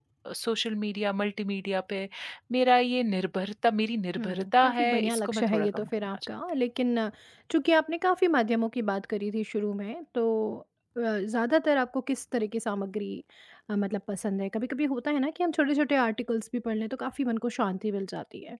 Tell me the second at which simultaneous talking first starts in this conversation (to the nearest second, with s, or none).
4 s